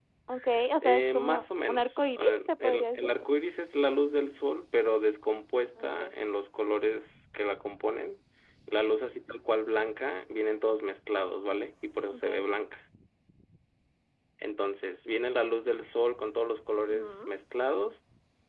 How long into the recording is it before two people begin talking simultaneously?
0.8 s

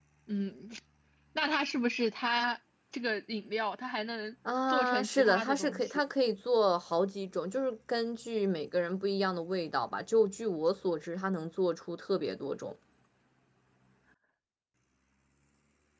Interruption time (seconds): 4.7 s

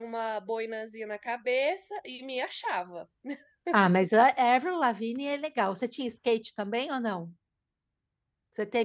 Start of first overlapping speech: none

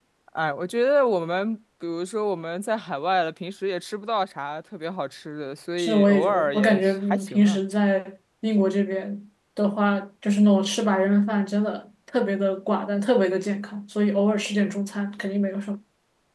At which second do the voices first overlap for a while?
5.8 s

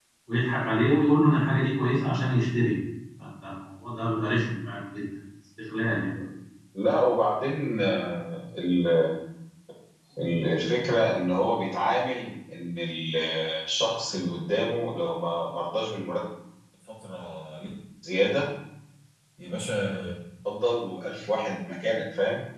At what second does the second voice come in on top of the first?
none

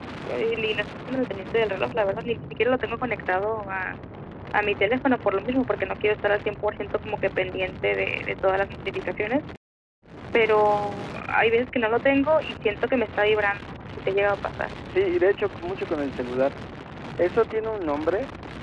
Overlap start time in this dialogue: none

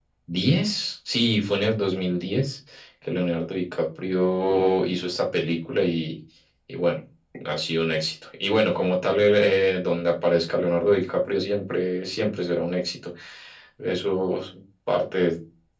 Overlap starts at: none

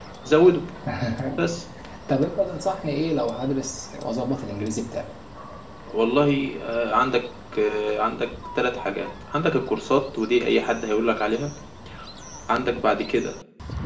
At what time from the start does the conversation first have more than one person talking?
none

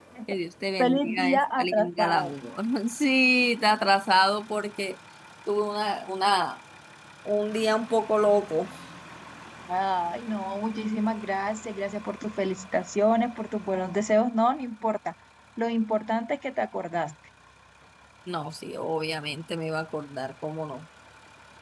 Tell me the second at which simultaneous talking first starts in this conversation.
0.8 s

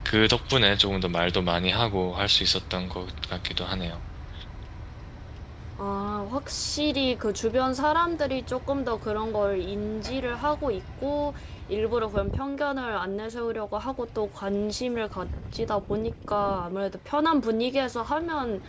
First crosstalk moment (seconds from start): none

